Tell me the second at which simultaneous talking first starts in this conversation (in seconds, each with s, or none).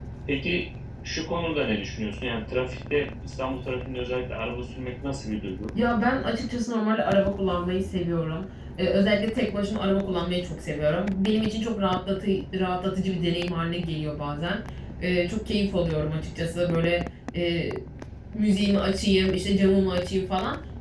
none